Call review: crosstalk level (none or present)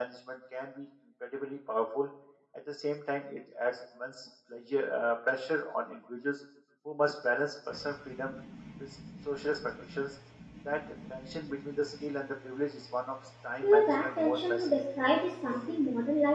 present